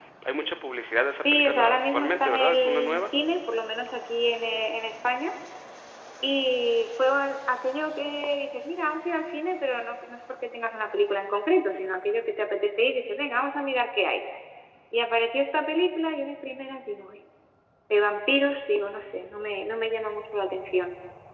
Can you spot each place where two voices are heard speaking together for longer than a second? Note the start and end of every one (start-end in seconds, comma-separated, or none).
1.2-3.0